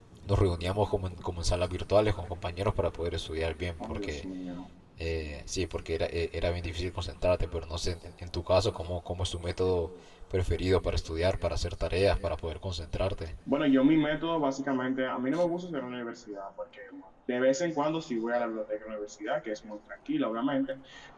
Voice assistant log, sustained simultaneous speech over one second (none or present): none